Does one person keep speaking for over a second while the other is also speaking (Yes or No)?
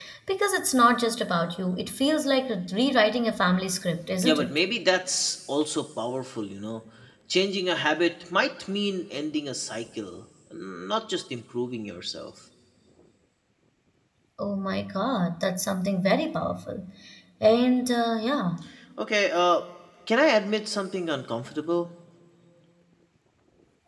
No